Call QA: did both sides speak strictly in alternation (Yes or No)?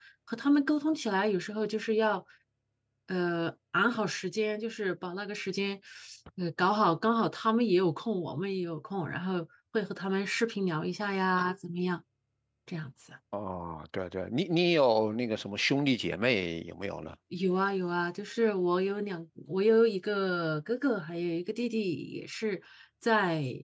Yes